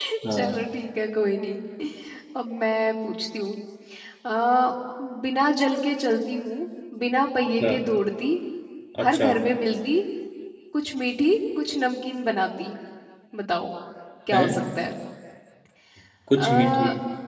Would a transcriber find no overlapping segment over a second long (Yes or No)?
Yes